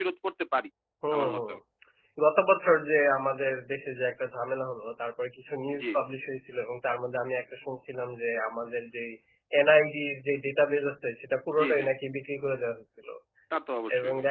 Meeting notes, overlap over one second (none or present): none